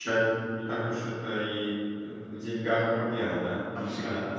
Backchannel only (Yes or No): No